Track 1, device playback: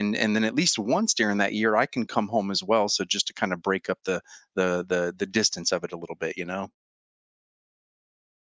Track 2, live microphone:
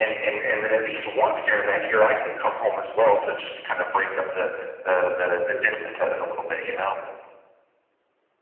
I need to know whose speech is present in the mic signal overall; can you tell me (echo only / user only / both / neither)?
echo only